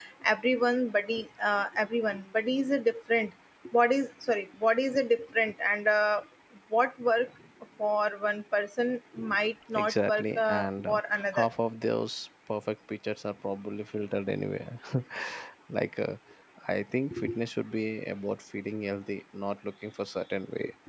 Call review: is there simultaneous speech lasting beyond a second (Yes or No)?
Yes